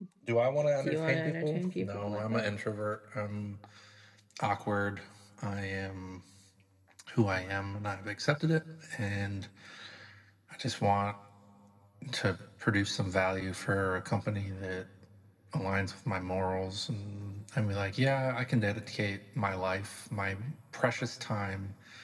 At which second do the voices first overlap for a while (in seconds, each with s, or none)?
0.8 s